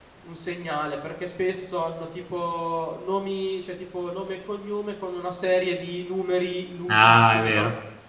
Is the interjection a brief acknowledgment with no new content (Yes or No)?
No